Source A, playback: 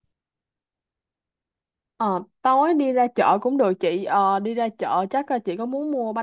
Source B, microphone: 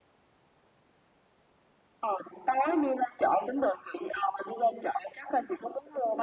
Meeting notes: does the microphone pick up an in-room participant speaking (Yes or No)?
No